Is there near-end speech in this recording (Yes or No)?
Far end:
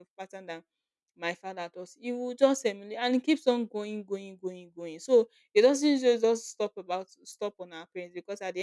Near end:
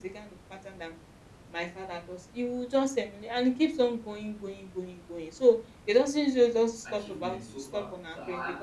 Yes